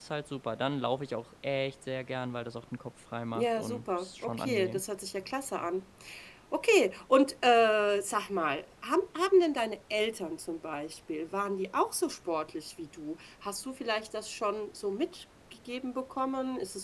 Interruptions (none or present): present